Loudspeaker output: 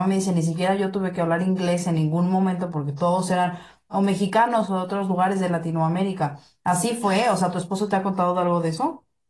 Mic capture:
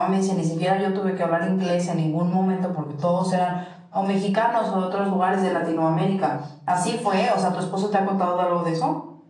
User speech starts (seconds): none

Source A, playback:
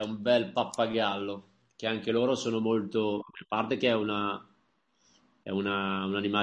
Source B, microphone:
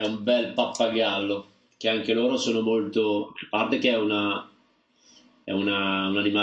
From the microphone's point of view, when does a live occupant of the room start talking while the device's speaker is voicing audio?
none

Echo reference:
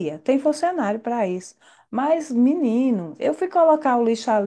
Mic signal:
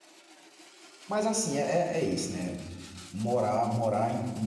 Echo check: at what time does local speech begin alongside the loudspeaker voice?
1.1 s

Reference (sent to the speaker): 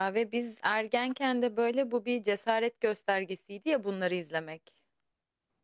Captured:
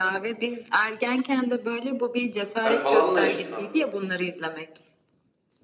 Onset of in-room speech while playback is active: 2.6 s

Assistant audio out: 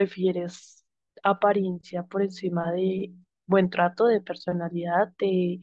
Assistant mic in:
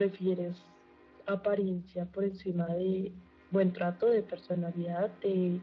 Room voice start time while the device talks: none

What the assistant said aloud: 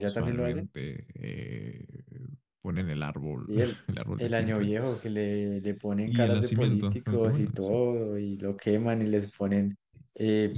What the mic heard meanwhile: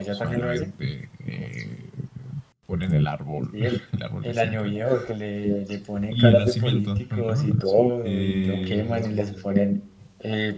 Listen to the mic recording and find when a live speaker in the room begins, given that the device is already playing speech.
8.0 s

